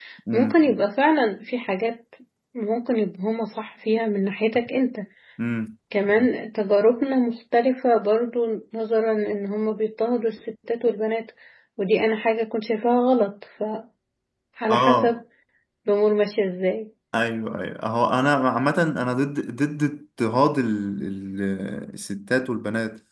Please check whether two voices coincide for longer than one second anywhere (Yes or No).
No